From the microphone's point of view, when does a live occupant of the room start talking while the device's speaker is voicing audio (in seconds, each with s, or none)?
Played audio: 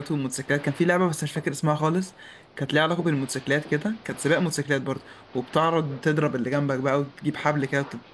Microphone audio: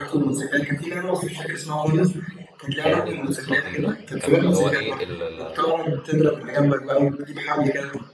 2.8 s